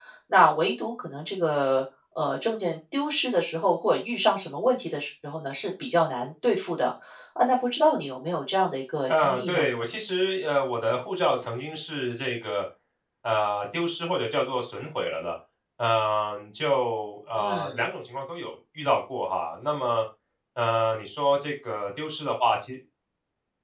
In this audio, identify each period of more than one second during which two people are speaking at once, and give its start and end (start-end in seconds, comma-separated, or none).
none